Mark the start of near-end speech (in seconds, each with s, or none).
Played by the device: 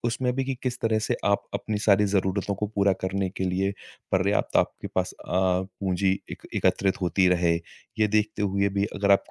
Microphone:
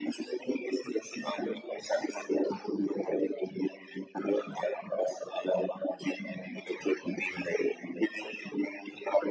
none